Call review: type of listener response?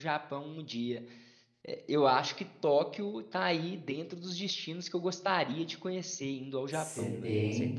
taking over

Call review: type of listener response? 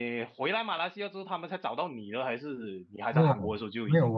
taking over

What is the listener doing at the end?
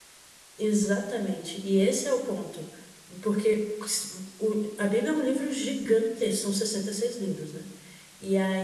listening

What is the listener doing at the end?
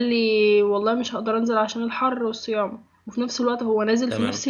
listening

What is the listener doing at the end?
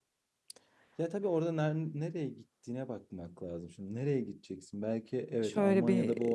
taking over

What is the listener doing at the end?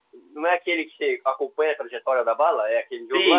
taking over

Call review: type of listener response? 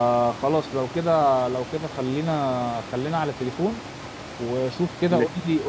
listening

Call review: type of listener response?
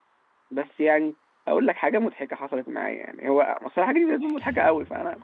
listening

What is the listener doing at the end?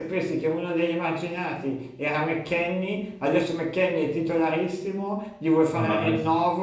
listening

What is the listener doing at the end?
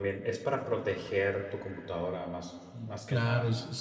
taking over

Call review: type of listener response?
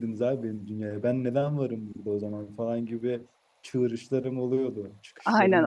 taking over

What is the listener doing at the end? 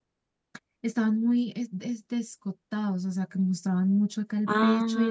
listening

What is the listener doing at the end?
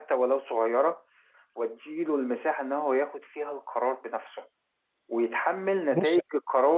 listening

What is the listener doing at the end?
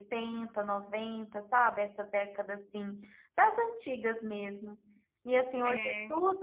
listening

